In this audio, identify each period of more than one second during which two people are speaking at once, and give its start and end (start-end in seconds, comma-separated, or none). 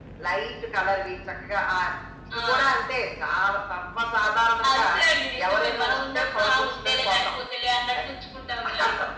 5.4-7.2